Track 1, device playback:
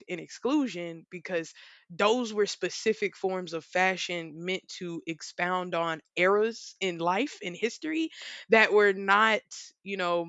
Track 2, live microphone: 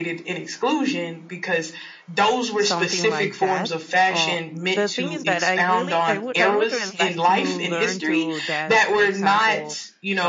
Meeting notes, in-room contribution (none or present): present